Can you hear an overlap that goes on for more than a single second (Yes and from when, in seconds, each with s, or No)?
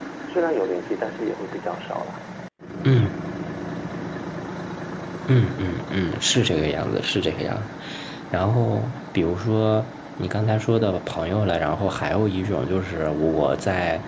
No